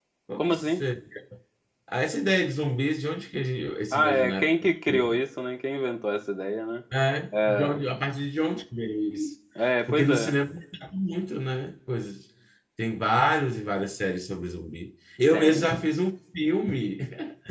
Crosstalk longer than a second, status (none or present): present